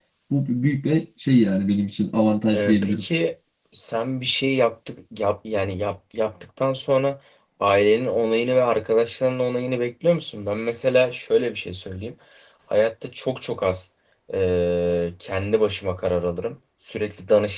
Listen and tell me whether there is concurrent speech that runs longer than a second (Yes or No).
No